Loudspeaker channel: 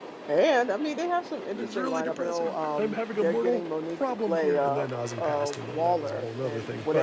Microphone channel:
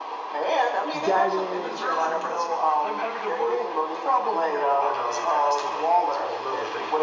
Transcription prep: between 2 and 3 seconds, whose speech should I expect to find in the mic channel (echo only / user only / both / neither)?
both